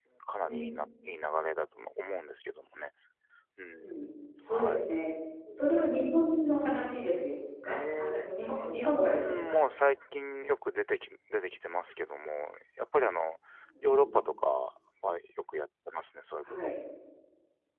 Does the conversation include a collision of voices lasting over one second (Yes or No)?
Yes